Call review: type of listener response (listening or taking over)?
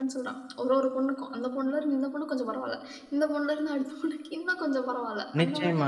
taking over